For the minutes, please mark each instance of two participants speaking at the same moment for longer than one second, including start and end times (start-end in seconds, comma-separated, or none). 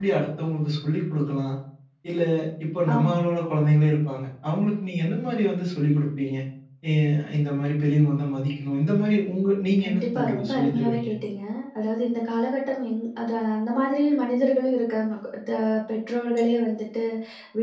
9.8-11.1